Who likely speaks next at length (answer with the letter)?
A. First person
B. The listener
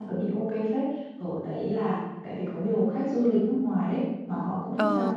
A